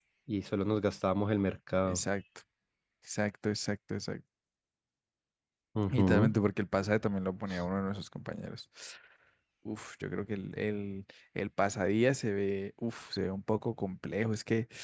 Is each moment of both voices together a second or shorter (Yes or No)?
Yes